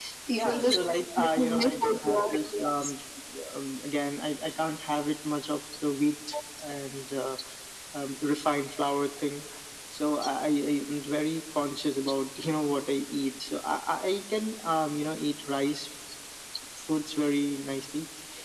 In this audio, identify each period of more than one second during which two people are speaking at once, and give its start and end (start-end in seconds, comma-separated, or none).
1.2-2.9